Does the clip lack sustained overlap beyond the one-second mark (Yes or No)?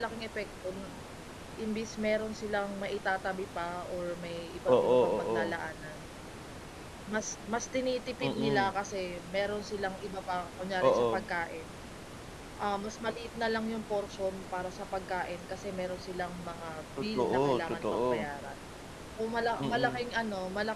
No